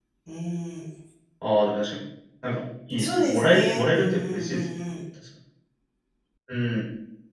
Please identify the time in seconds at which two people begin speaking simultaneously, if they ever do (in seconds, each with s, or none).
3.0 s